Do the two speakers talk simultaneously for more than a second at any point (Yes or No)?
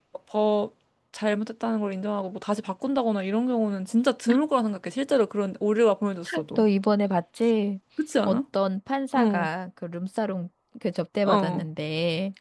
No